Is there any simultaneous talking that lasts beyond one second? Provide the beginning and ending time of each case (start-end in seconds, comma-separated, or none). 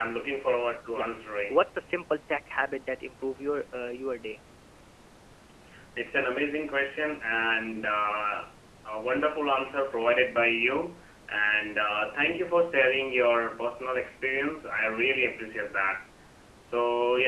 none